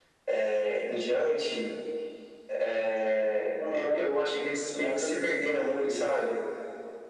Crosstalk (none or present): present